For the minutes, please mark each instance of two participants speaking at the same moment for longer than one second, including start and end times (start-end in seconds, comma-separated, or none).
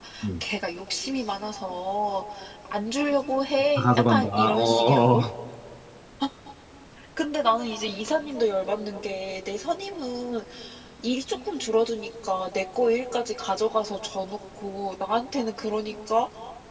3.8-5.2